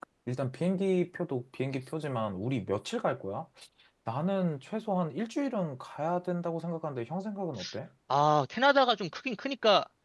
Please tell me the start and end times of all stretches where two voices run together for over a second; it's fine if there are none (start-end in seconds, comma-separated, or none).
none